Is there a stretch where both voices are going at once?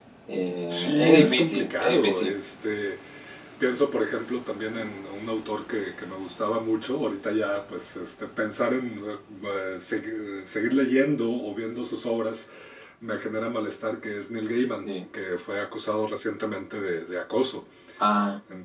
Yes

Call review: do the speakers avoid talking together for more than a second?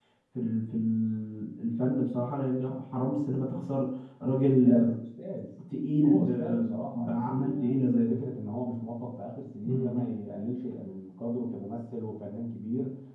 No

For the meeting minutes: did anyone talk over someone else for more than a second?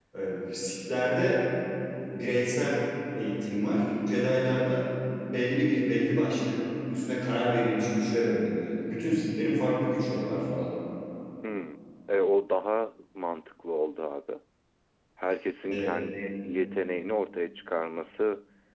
No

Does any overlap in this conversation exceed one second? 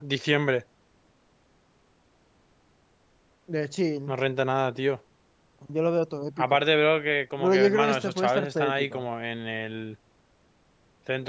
Yes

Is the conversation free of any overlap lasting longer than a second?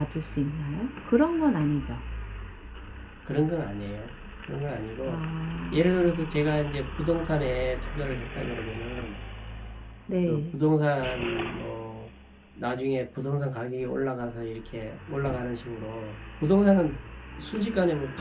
Yes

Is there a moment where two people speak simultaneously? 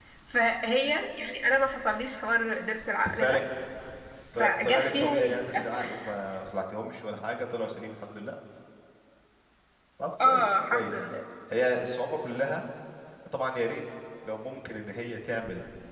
Yes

